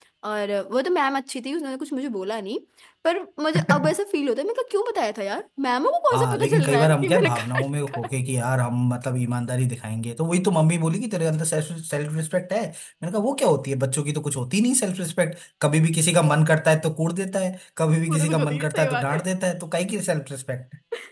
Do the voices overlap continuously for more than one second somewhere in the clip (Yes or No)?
Yes